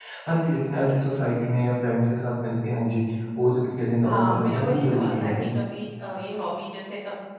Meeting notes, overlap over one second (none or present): present